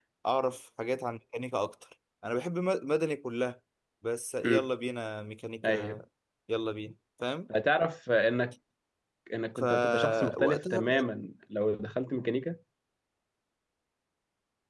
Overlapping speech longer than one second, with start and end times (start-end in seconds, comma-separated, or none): 9.6-11.0